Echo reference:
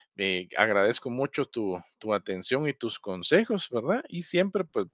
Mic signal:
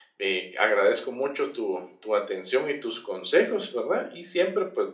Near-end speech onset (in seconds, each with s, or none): none